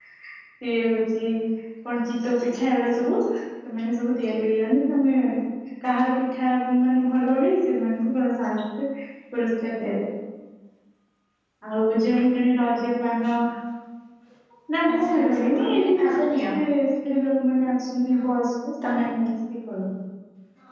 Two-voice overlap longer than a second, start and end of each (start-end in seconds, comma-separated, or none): 14.9-16.4